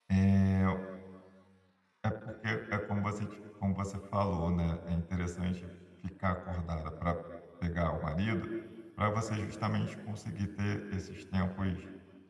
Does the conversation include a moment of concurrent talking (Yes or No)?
No